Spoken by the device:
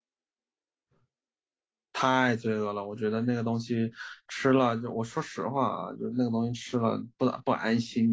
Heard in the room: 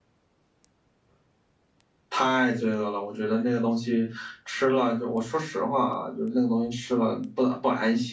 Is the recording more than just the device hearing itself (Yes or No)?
No